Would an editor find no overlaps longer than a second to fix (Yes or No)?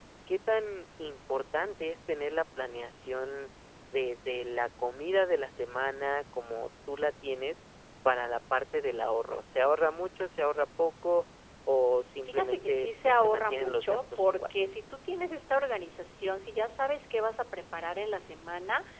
No